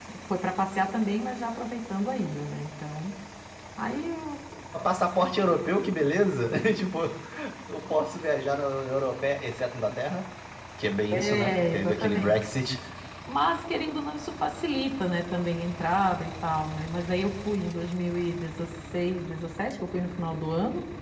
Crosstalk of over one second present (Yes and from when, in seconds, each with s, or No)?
Yes, from 11.1 s